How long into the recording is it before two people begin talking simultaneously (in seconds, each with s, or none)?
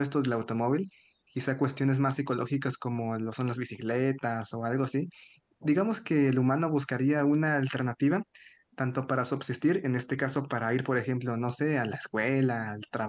none